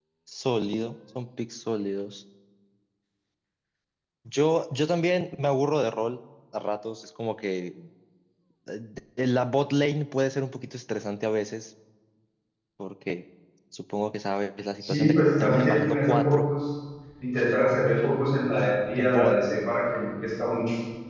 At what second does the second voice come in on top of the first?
14.8 s

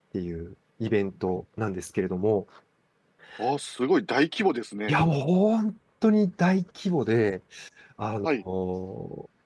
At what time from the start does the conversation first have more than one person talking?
none

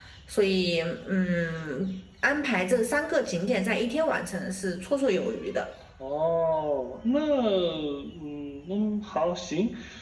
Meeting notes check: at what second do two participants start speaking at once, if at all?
none

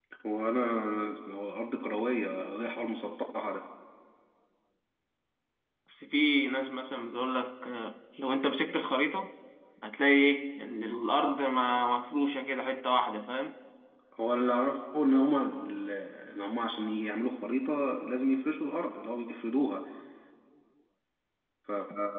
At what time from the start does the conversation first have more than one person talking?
none

